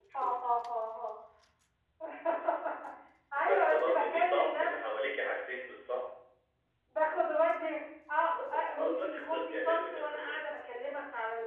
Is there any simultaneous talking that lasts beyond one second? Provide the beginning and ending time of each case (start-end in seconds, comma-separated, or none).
3.4-5.1, 8.2-10.4